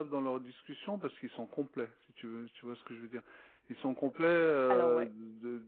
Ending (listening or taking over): listening